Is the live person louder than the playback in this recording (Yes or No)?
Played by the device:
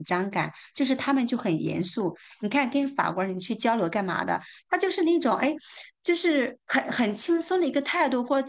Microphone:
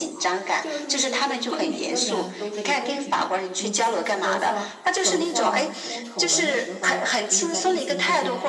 No